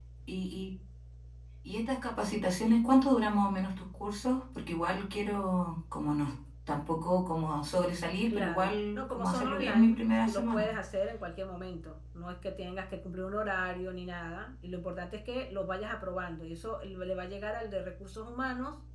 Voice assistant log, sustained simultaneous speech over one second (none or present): present